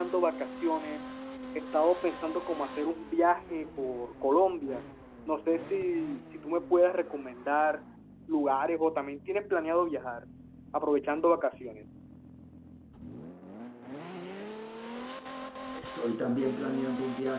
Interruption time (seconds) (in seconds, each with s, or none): none